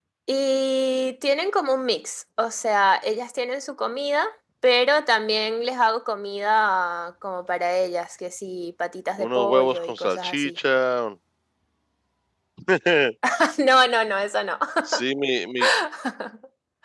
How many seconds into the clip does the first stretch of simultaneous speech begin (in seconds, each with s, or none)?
9.2 s